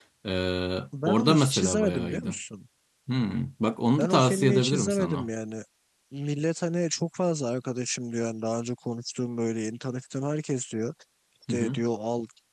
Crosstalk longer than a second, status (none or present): present